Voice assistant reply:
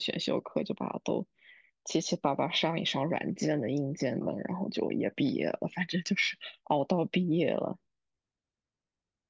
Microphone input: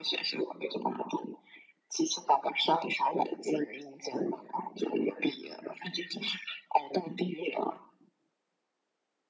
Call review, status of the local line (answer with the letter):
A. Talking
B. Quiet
B